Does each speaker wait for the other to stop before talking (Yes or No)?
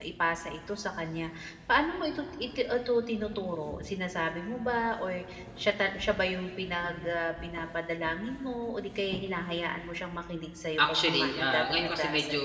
No